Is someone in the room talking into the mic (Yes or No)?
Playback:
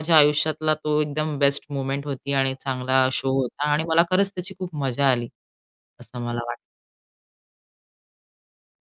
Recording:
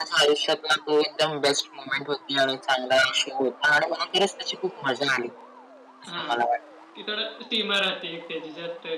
Yes